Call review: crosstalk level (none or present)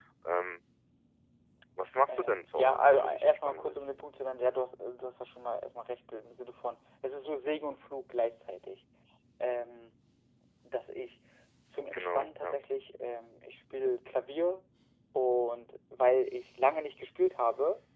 present